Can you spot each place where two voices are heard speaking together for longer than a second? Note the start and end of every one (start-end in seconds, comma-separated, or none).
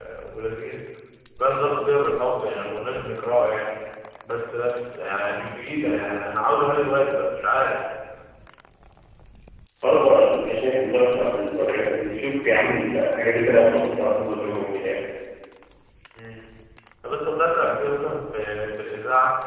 none